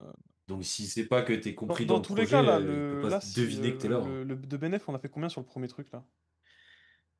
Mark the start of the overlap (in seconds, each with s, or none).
1.7 s